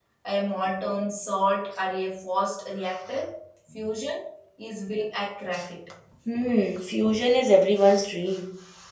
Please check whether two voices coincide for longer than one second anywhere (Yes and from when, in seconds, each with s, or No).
No